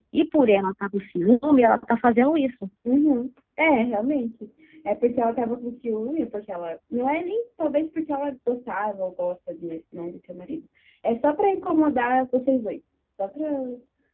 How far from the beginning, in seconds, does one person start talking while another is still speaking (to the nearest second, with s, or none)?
none